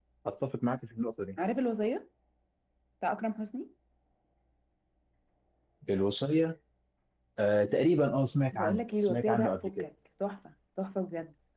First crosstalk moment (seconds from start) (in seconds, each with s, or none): 8.5 s